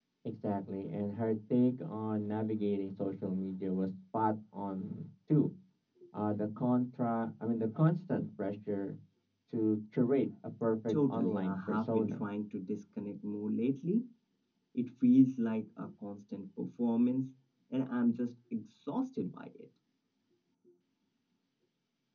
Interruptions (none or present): present